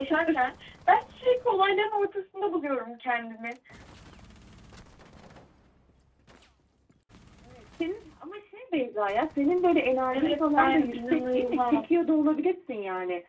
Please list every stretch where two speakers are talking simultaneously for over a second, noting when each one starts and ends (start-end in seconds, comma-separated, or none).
10.1-12.0